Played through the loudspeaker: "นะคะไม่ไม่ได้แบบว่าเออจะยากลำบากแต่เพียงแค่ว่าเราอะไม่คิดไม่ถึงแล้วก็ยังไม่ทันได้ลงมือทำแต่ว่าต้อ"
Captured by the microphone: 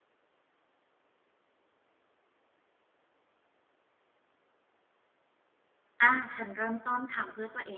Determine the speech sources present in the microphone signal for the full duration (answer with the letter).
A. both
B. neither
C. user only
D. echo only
C